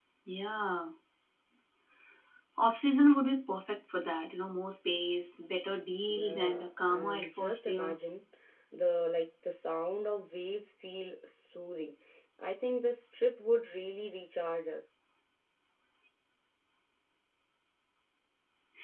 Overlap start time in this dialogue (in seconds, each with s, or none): 6.1 s